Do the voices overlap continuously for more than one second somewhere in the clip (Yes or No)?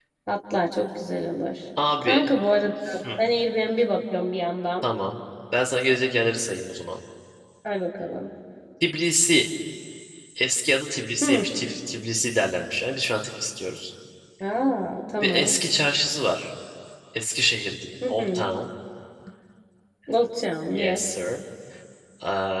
No